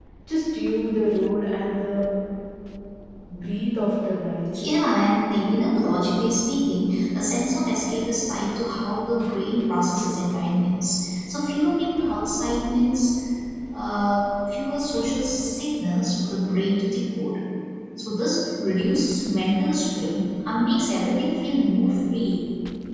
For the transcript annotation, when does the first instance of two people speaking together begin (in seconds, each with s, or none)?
none